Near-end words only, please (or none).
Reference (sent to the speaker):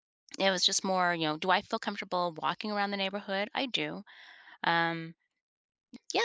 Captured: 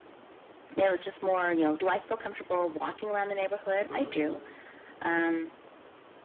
Sure.